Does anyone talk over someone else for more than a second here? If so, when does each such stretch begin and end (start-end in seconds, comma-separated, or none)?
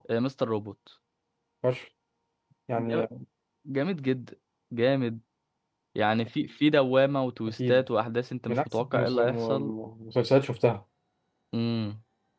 8.5-9.7